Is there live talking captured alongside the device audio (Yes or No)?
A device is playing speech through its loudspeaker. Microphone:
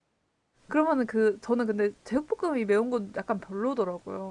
Yes